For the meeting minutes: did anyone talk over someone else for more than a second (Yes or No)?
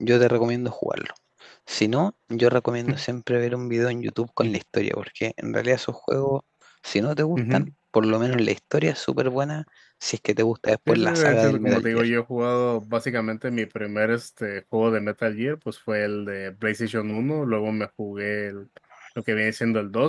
Yes